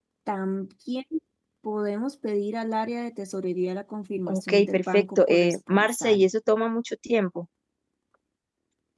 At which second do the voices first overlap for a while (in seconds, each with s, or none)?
4.3 s